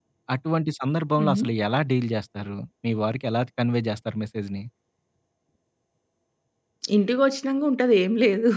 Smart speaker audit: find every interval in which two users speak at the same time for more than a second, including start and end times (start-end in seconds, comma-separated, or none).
none